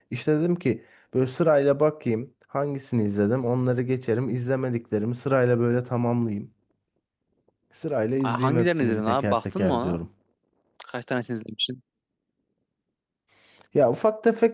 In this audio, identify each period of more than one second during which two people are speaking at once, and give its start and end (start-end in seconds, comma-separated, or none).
8.2-10.0